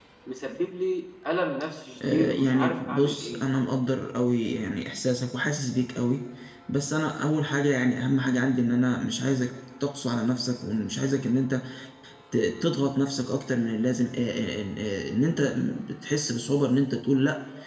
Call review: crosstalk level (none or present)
present